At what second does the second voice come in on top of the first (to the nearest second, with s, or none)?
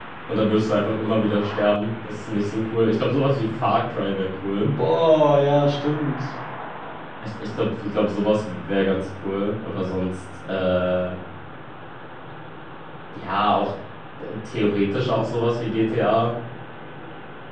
none